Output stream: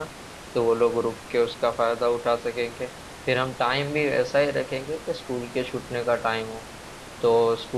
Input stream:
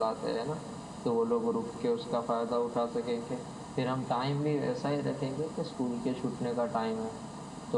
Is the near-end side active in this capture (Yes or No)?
No